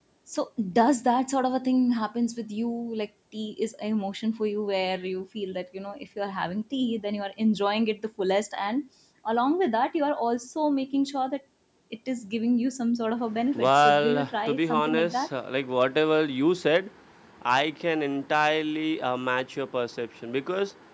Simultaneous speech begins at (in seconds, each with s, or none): 13.6 s